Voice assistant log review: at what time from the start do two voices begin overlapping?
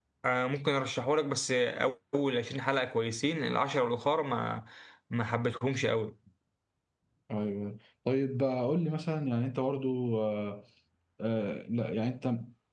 none

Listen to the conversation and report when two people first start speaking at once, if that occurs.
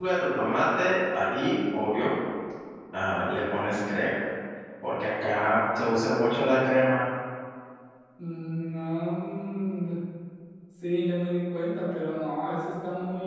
none

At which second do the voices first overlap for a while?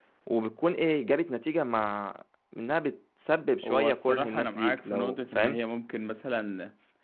3.6 s

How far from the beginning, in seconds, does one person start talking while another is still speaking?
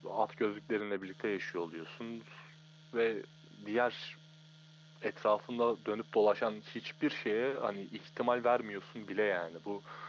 none

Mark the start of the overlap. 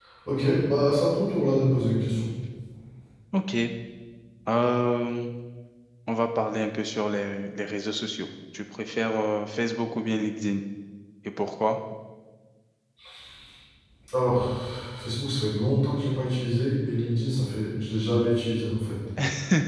none

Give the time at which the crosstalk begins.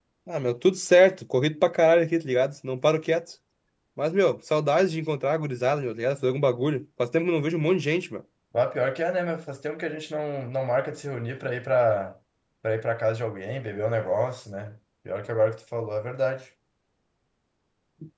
none

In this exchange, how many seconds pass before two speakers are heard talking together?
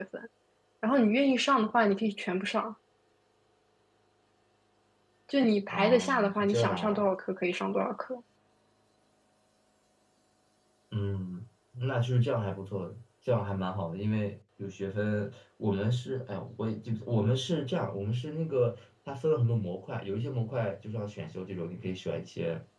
5.7 s

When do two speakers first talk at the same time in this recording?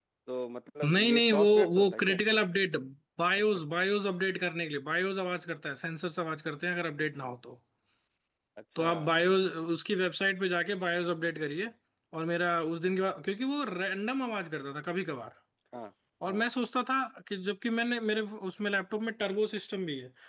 0.9 s

